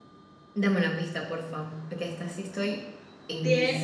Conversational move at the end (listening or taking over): taking over